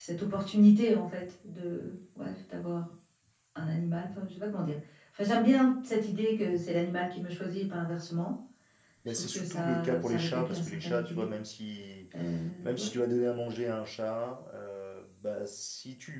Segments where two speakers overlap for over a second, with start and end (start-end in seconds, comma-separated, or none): 9.1-11.3